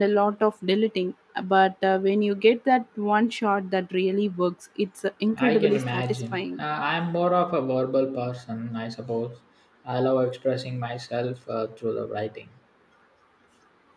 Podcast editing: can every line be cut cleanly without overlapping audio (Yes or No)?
No